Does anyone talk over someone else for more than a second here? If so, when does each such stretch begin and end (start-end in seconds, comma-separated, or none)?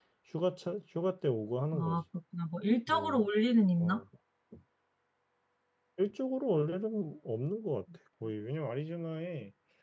none